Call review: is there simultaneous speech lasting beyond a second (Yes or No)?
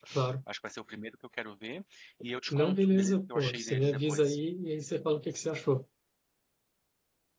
Yes